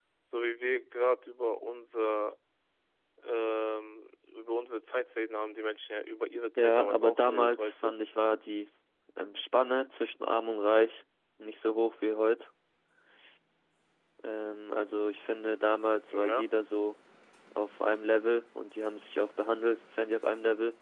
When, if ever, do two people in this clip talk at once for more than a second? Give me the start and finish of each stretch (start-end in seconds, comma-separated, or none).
6.6-7.9